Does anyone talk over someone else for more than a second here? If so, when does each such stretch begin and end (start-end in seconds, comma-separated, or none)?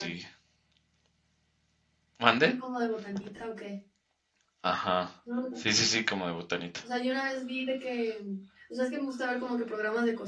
none